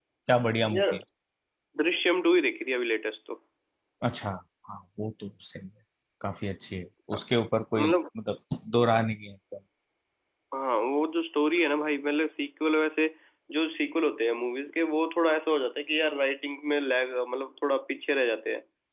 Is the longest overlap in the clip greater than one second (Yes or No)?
No